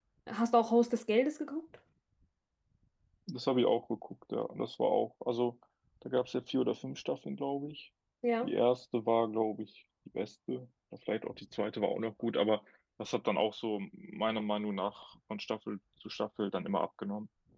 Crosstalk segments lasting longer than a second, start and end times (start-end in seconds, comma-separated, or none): none